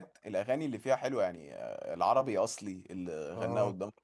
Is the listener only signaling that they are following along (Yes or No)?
Yes